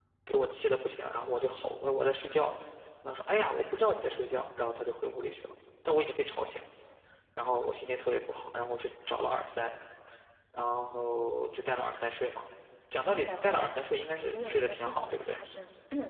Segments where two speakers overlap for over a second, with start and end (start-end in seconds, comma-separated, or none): 14.2-15.4